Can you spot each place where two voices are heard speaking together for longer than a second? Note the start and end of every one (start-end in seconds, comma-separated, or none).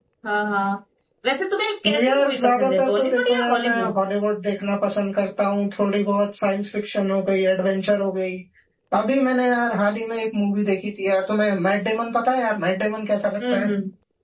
2.0-4.0